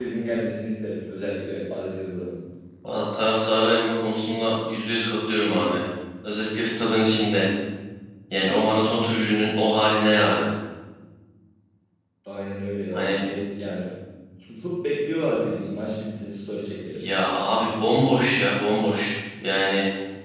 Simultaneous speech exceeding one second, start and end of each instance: none

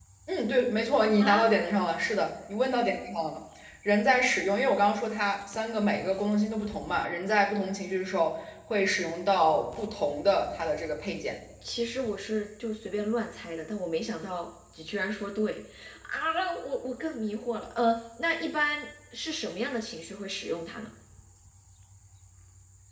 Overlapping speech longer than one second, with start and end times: none

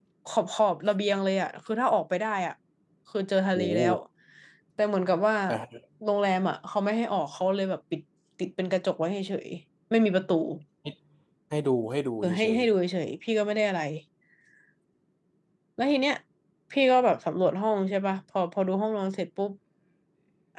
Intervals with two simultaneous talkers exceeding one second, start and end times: none

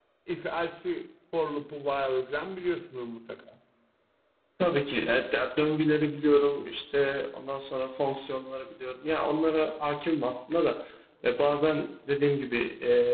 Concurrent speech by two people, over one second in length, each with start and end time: none

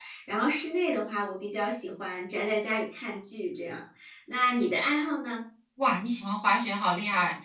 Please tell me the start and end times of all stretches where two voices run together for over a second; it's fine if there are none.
none

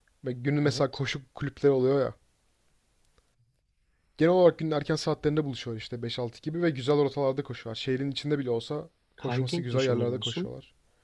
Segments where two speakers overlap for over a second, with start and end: 9.3-10.5

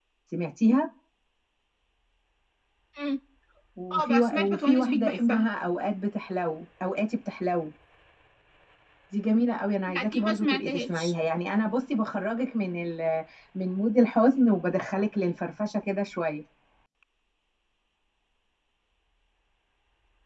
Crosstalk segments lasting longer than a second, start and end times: 3.9-5.5, 9.9-11.1

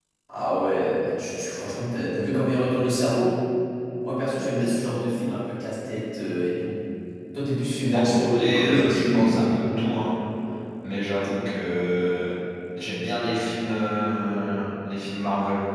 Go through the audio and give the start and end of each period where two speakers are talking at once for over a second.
7.9-9.6

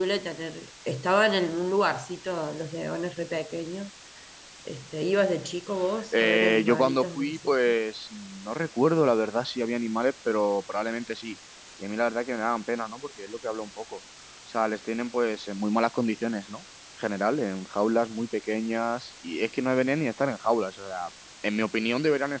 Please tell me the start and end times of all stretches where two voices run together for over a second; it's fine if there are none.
6.1-7.7

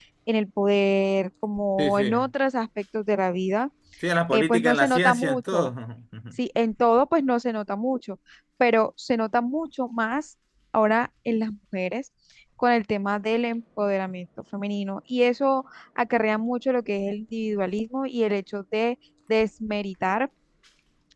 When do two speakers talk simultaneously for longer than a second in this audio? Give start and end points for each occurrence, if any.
4.3-5.7

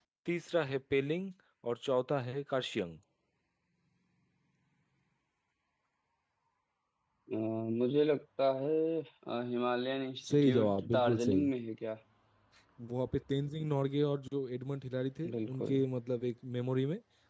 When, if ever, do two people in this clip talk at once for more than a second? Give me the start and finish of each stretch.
10.3-11.5

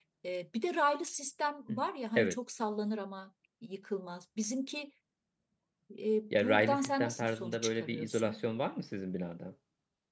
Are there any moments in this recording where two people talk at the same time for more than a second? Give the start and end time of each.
6.3-8.4

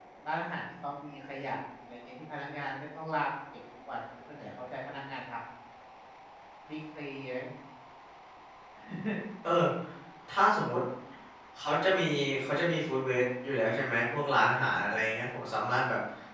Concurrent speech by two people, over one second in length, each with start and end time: none

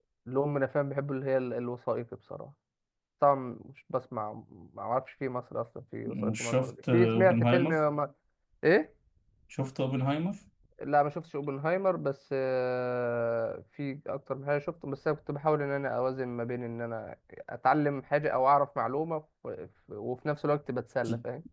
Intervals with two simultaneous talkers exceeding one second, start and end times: 6.1-7.8

